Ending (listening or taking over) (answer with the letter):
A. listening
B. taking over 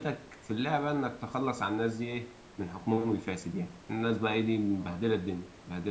A